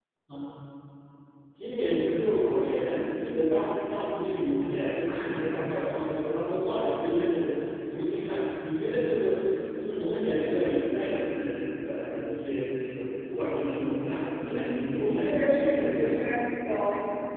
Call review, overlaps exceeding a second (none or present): present